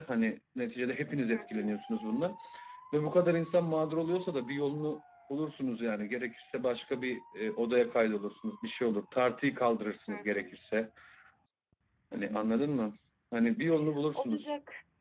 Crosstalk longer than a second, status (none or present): none